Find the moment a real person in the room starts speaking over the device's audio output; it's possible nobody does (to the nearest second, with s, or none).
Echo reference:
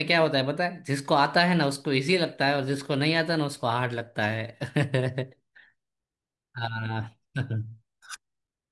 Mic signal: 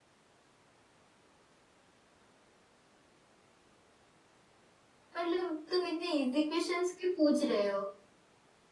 5 s